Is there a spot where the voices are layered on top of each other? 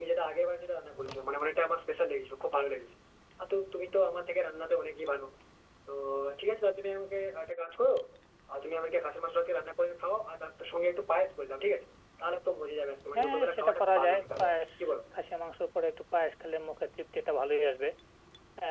Yes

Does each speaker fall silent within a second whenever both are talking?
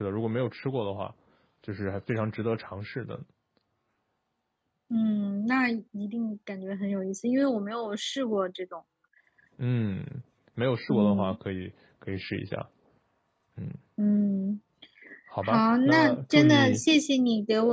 No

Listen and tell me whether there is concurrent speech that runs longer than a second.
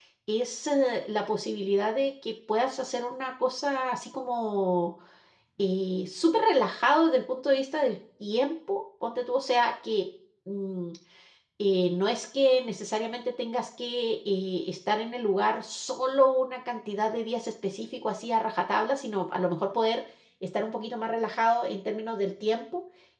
No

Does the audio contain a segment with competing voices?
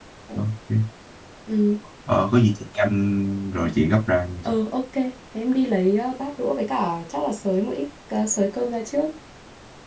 No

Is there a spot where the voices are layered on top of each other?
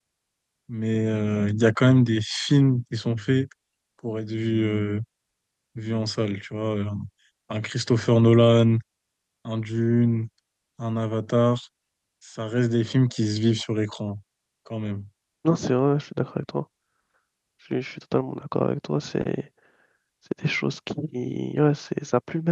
No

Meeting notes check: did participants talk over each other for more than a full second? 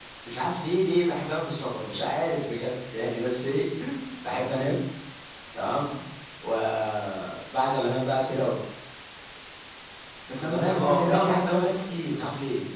Yes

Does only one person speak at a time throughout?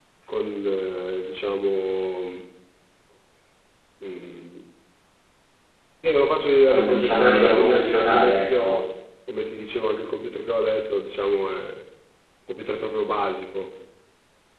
No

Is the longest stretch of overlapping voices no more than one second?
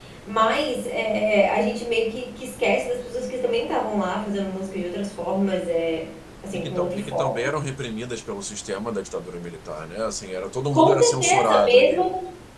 No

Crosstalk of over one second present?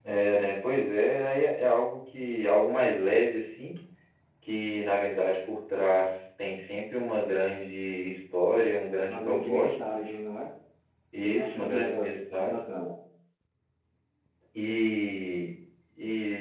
Yes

